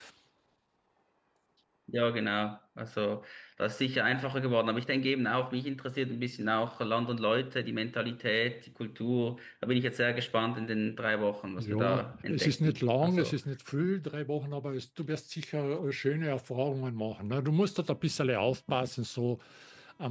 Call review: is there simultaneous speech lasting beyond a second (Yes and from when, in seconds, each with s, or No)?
Yes, from 11.6 s